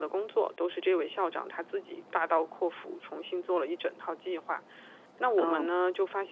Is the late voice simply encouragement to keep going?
Yes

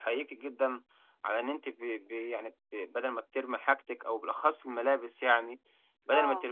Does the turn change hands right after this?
No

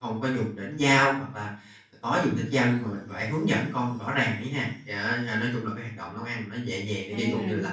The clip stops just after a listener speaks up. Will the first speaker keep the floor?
Yes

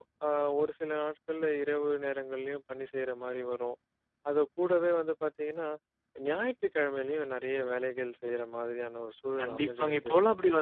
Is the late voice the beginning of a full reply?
Yes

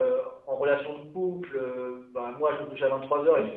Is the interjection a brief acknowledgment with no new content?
Yes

